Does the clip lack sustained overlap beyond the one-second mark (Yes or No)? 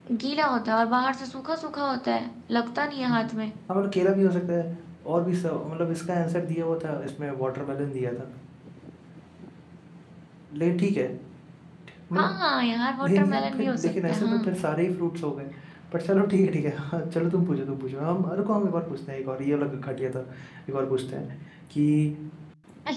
No